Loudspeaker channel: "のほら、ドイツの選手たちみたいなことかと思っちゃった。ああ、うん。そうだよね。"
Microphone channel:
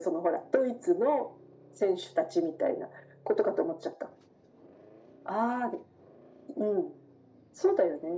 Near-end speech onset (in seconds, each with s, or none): none